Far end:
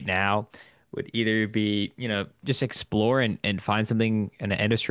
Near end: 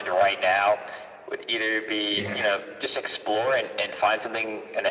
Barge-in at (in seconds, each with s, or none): 2.1 s